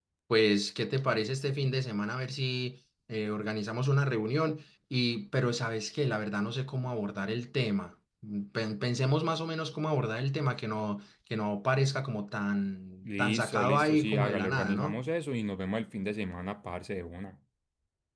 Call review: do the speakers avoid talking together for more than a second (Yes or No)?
No